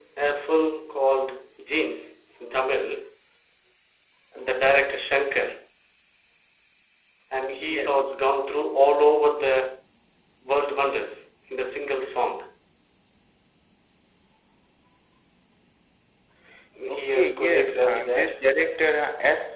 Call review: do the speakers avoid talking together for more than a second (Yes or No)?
No